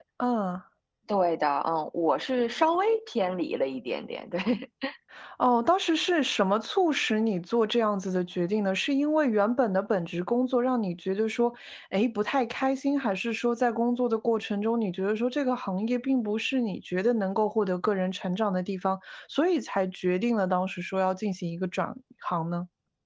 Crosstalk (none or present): none